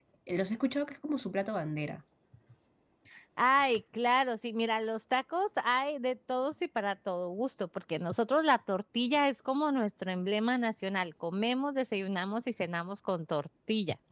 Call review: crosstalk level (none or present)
none